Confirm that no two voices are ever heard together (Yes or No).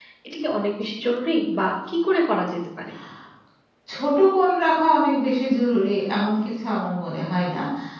Yes